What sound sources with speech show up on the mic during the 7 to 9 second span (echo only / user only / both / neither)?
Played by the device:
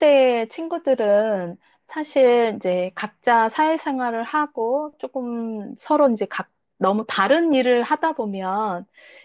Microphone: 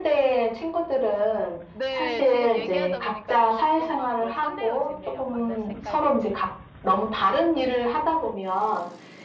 echo only